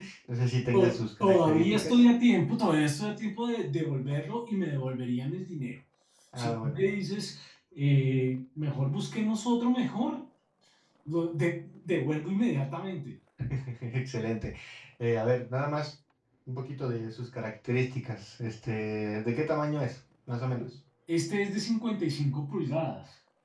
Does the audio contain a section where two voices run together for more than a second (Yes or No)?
Yes